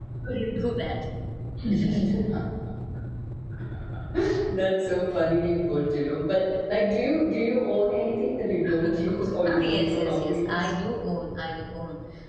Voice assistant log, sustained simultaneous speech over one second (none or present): present